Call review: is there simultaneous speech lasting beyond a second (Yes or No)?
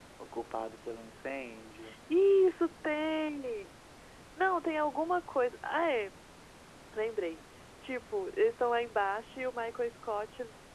No